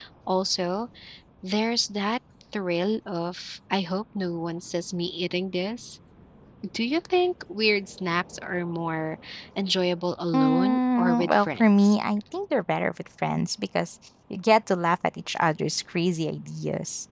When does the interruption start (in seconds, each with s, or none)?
10.3 s